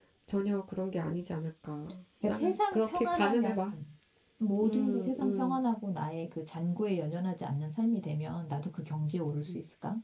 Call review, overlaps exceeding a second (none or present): present